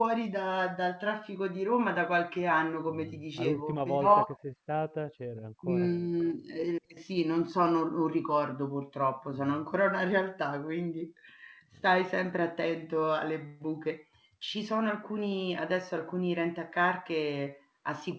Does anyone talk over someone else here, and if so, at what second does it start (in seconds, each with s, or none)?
2.9 s